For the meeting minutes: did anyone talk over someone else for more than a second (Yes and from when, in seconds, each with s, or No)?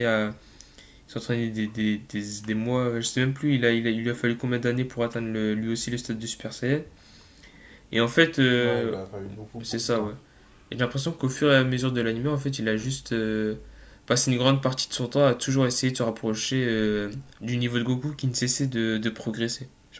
No